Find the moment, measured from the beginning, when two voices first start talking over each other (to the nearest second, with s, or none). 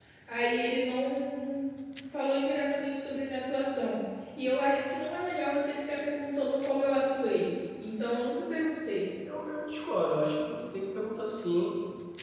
none